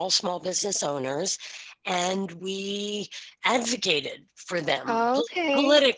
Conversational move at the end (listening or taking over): listening